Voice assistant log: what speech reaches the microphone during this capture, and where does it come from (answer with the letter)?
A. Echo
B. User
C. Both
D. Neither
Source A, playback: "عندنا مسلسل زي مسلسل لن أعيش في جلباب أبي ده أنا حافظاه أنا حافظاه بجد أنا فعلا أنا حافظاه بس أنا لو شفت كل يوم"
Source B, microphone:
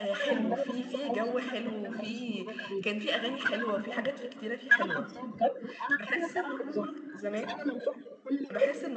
C